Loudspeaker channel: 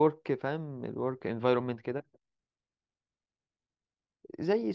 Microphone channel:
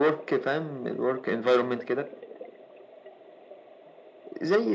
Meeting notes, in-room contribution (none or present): none